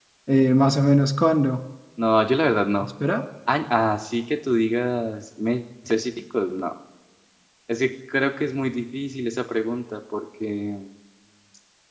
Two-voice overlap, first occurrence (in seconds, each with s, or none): none